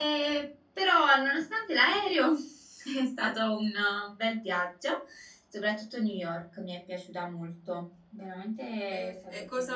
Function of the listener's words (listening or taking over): taking over